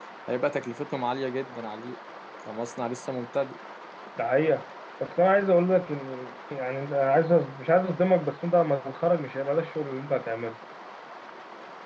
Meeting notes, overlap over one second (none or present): none